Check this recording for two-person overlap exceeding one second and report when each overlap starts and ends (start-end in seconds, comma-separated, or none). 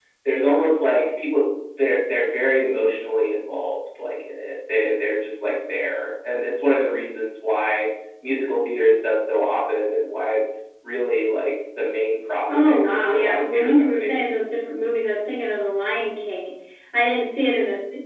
12.7-14.2